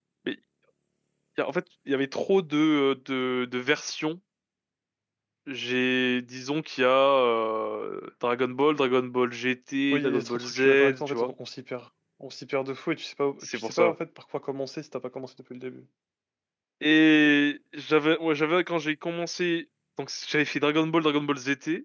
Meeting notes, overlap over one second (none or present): present